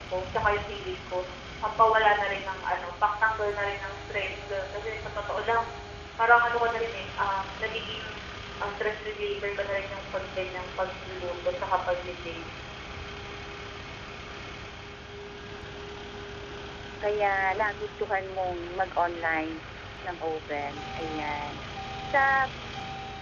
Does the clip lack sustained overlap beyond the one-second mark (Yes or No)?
Yes